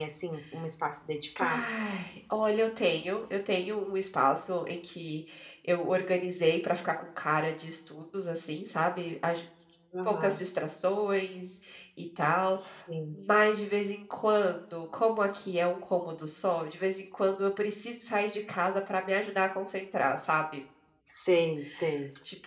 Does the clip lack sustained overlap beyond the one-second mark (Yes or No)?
Yes